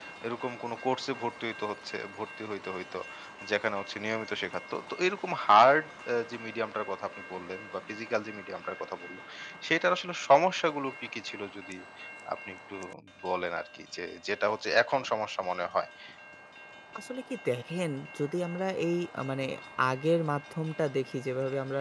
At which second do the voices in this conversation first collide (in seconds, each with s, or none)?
none